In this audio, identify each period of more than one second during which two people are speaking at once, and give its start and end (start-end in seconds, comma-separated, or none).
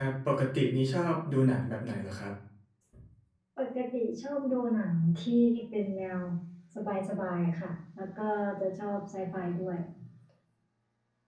none